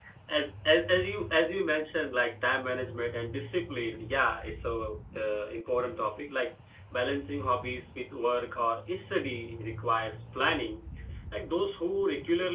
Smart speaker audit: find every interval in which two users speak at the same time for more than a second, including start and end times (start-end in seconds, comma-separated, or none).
none